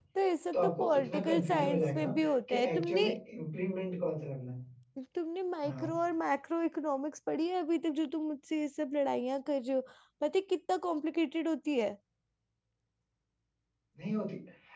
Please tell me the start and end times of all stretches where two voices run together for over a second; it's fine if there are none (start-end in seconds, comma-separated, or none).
0.5-3.1